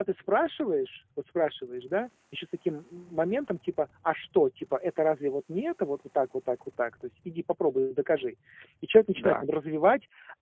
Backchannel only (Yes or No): Yes